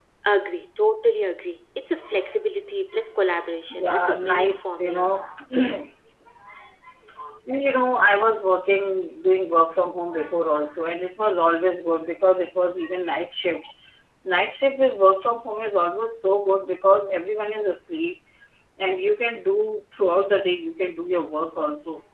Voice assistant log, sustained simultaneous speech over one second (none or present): present